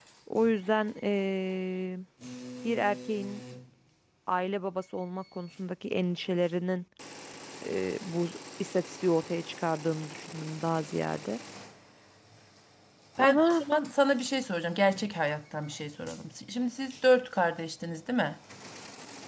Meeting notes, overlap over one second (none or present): none